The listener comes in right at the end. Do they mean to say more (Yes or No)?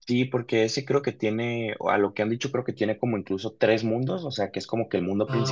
No